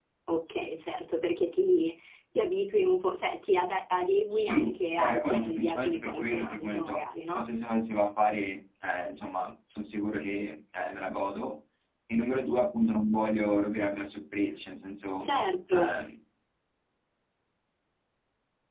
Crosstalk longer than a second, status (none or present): present